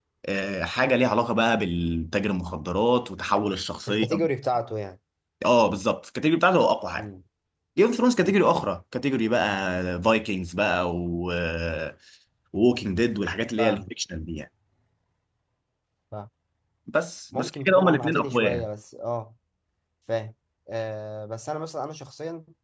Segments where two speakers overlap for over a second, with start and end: 17.4-18.7

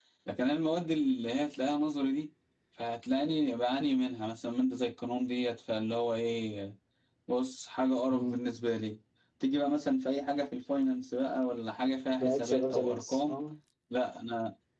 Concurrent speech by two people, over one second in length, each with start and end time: 12.2-13.4

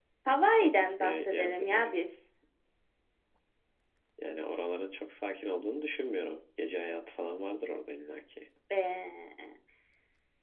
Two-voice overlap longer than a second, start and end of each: 0.6-2.0

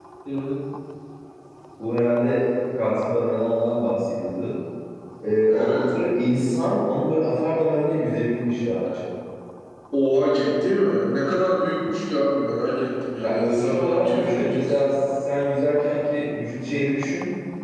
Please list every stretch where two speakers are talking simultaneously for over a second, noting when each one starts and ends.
13.2-14.8

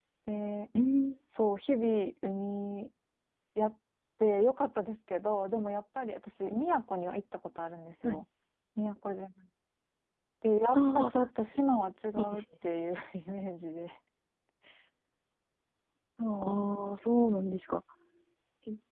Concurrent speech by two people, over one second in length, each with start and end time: none

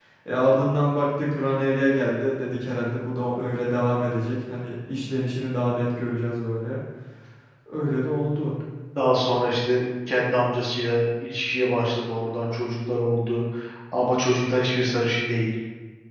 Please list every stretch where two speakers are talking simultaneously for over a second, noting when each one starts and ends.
none

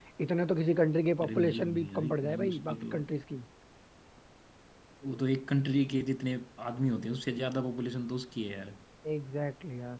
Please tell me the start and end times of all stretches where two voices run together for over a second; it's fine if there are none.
1.2-3.0

